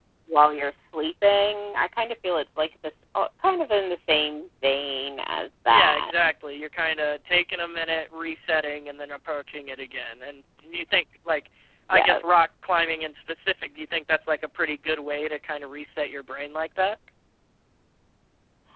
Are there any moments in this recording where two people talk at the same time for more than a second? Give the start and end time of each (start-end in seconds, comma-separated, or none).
none